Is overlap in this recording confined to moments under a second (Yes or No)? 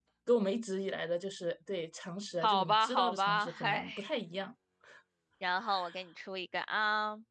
No